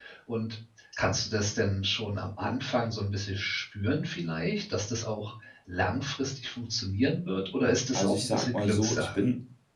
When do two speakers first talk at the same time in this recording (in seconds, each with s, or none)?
7.9 s